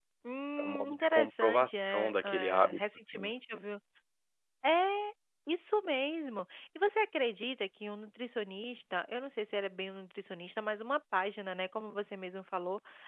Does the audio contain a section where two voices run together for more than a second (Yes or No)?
Yes